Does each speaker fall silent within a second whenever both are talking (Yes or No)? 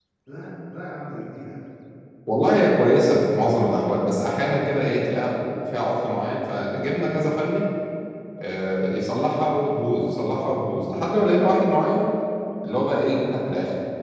Yes